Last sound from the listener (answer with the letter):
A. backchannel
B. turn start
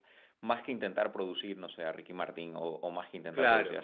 A